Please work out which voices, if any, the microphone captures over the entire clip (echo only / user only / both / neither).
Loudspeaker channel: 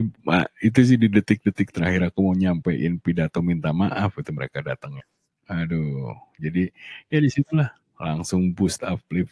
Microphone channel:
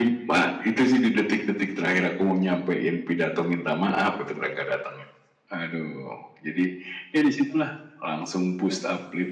echo only